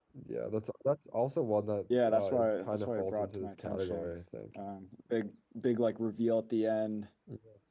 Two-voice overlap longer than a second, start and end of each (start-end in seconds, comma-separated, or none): 2.1-4.1